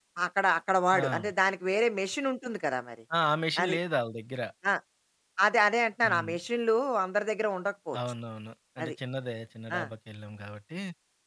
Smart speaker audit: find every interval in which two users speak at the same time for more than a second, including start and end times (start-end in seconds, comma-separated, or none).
none